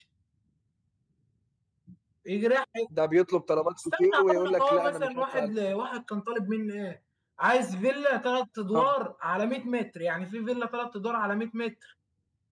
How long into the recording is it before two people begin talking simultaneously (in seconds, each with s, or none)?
3.8 s